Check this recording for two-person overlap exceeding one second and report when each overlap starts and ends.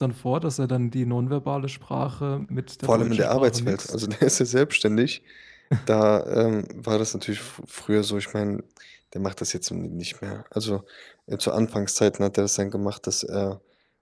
2.8-4.1

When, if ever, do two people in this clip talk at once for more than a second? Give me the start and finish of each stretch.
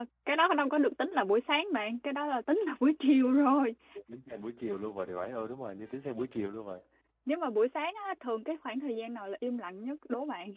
none

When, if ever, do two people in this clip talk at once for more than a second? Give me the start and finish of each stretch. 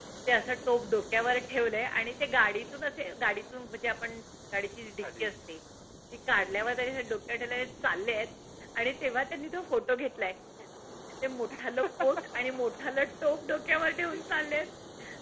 none

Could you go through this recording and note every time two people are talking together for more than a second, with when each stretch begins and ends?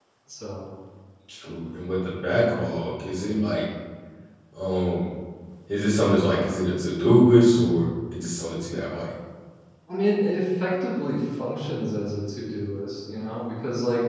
none

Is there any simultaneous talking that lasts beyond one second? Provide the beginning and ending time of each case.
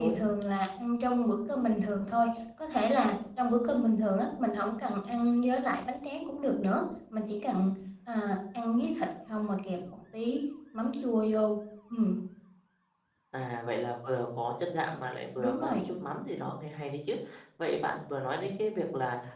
none

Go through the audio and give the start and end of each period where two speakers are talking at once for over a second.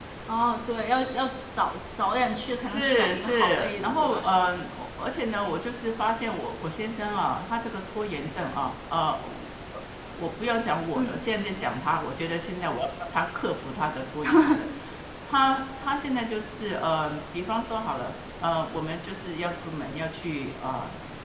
2.7-4.3

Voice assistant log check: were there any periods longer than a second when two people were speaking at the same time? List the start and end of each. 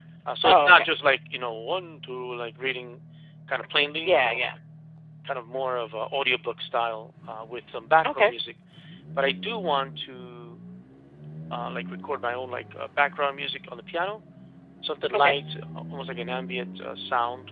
none

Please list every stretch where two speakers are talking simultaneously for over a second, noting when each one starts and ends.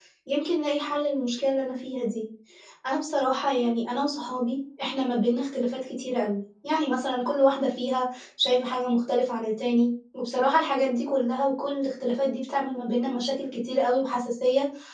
none

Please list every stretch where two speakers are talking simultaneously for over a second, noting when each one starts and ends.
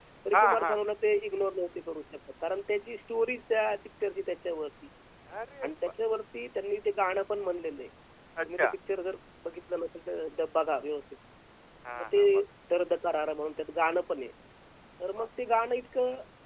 none

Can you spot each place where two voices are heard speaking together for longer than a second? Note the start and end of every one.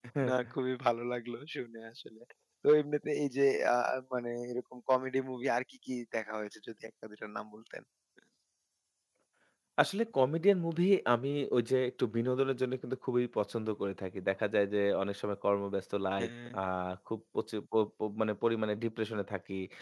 none

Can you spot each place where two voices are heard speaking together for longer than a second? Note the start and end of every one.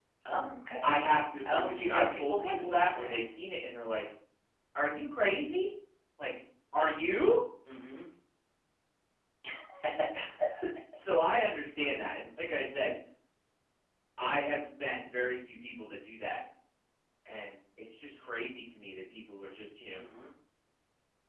1.4-3.2

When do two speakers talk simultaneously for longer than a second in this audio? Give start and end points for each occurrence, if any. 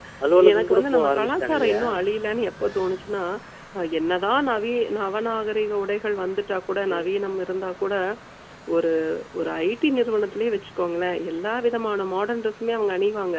0.5-1.8

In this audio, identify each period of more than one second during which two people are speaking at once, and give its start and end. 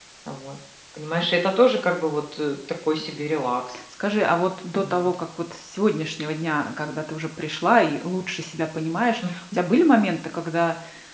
none

